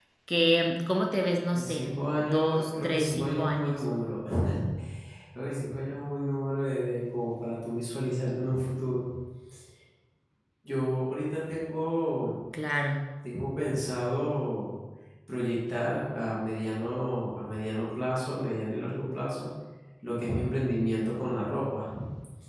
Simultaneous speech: Yes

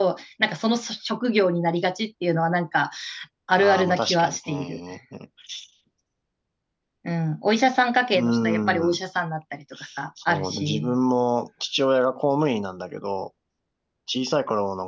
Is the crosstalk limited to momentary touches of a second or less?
No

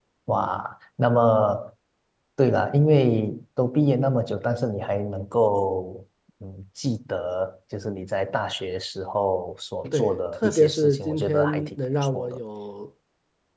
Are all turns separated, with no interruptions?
No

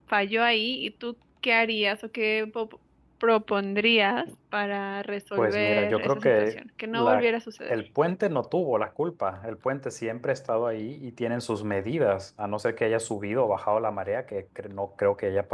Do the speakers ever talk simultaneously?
Yes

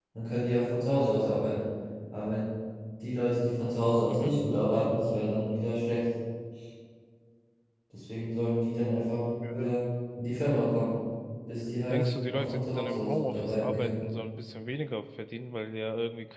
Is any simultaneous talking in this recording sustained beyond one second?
Yes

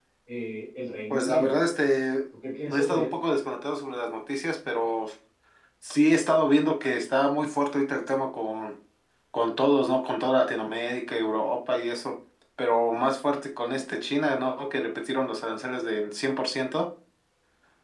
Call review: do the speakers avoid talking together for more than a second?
Yes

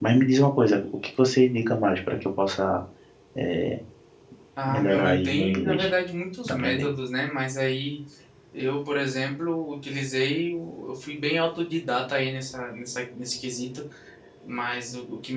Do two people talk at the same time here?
Yes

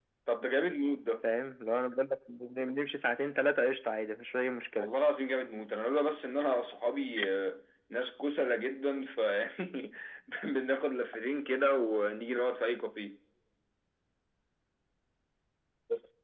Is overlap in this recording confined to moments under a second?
Yes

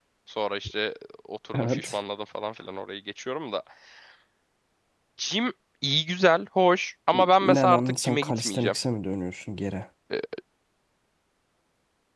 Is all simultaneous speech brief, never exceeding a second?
No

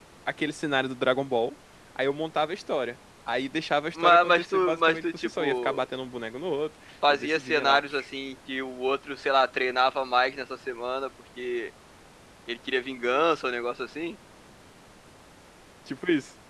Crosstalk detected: Yes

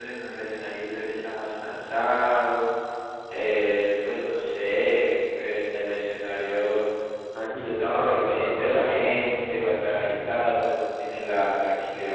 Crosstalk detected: Yes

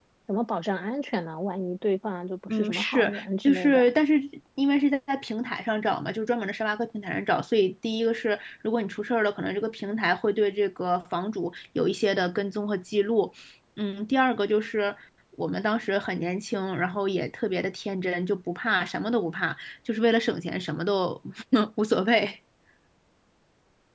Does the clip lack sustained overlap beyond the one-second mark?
No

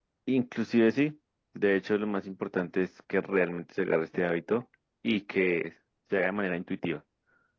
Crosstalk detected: No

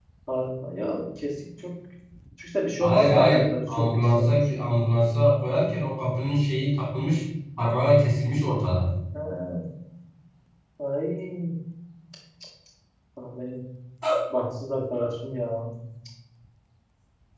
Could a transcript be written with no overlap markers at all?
No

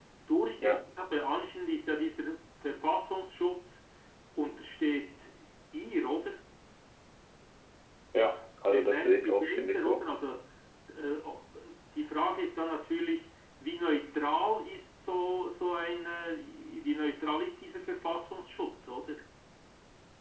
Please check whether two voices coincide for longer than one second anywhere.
Yes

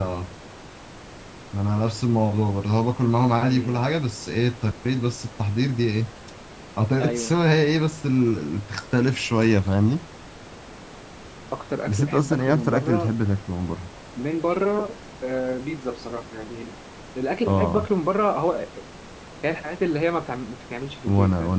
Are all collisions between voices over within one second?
No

